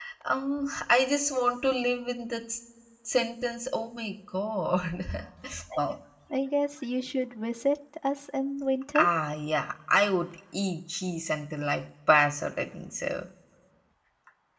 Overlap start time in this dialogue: none

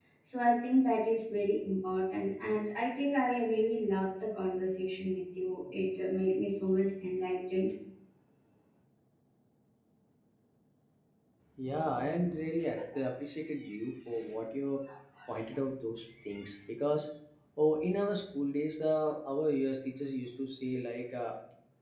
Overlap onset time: none

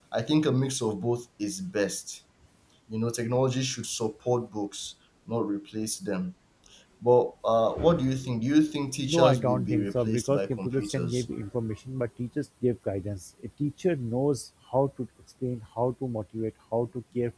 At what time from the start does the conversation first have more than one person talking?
9.1 s

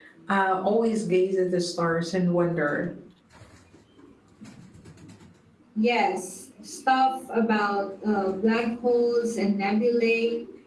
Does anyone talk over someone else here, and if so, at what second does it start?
none

